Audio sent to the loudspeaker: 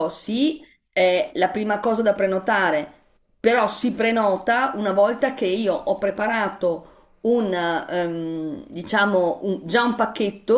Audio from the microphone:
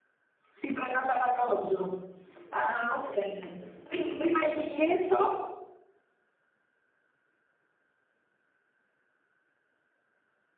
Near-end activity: present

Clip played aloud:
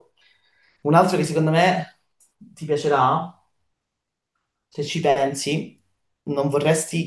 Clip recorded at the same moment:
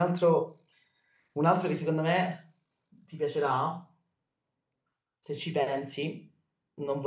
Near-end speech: none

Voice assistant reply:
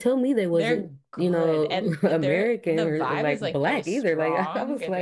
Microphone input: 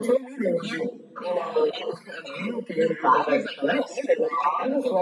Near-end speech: present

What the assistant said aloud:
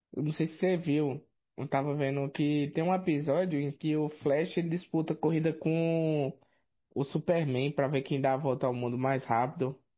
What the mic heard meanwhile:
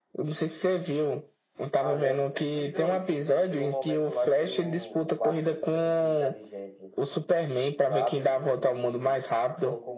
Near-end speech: present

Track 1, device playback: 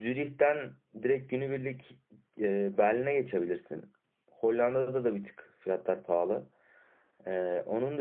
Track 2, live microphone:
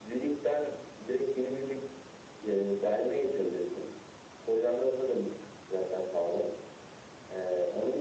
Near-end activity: none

